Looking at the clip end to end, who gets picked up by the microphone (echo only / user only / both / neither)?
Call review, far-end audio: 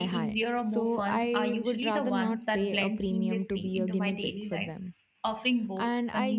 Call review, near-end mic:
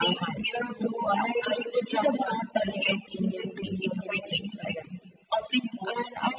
echo only